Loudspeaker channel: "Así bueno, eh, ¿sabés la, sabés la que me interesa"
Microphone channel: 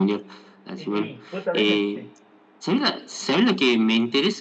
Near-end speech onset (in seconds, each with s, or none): 0.8 s